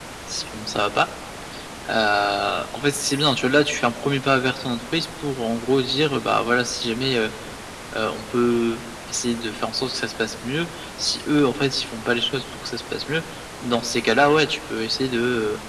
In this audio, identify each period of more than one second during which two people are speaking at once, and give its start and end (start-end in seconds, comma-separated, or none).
none